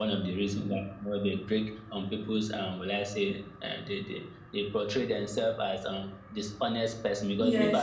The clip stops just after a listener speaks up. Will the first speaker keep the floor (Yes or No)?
Yes